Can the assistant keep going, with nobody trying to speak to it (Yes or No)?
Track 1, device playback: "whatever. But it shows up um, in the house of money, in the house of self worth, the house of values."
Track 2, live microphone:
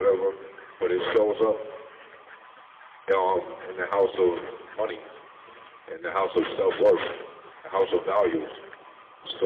Yes